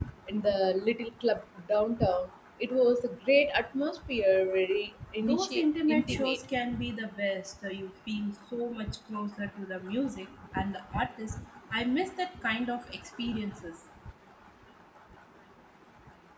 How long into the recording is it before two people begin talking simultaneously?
5.2 s

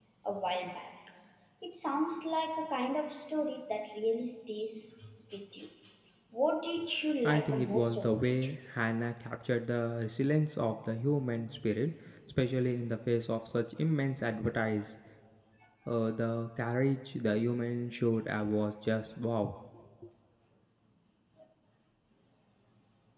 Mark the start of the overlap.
7.2 s

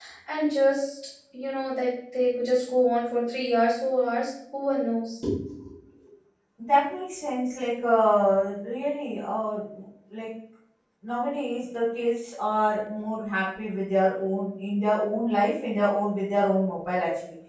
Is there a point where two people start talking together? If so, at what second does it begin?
none

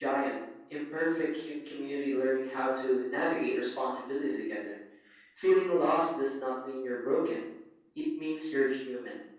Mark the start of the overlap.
none

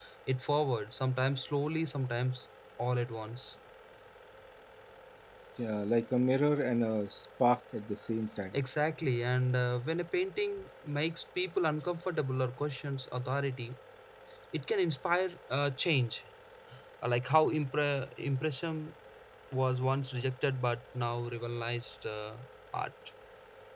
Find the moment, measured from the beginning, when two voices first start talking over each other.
none

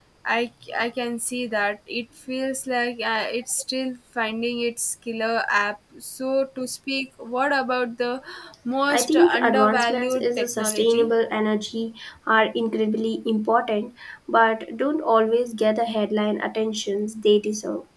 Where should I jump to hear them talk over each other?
8.9 s

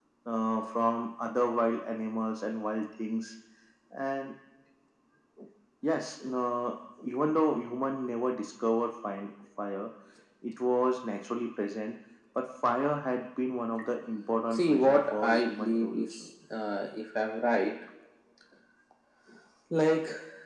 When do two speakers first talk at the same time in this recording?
14.5 s

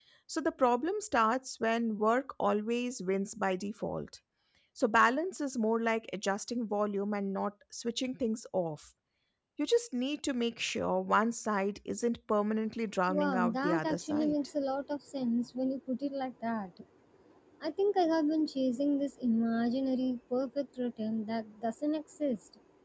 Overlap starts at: 13.1 s

